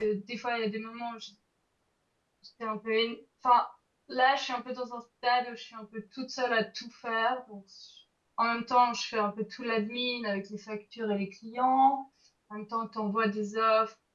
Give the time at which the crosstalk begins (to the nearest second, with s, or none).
none